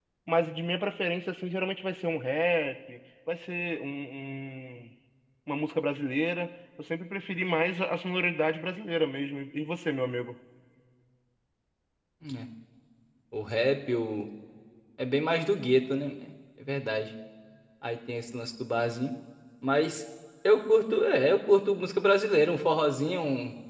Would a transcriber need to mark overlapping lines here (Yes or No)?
No